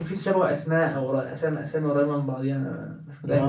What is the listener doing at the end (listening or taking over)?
taking over